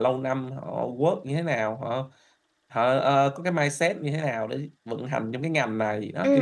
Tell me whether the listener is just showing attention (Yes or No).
No